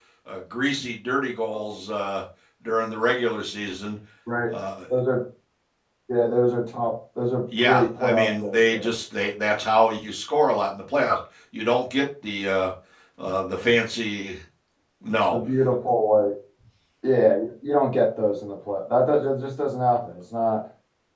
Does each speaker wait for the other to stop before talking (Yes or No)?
No